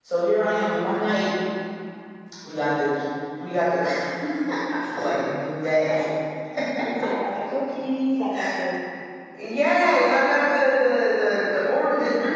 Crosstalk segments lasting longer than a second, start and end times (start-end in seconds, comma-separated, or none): none